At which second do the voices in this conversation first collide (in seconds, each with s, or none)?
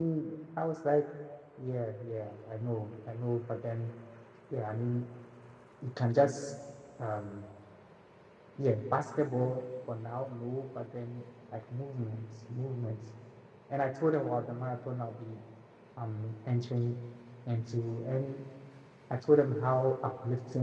none